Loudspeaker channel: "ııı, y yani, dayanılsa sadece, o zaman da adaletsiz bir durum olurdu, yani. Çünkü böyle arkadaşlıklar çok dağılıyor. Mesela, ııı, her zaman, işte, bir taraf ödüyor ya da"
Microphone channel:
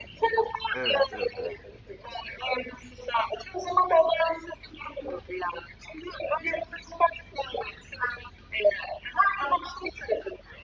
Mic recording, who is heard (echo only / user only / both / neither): both